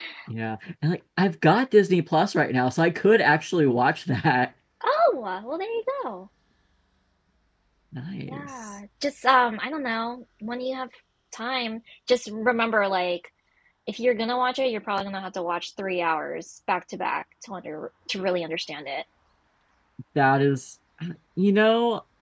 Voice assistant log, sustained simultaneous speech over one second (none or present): none